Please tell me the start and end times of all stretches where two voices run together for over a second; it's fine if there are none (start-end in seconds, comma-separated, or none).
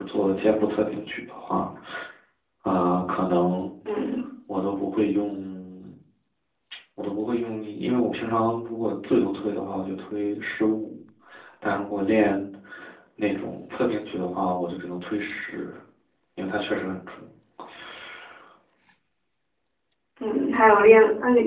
none